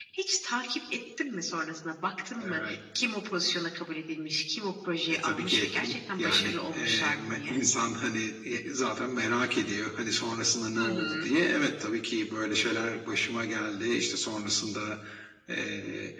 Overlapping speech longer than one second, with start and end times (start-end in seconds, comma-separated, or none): 5.1-7.6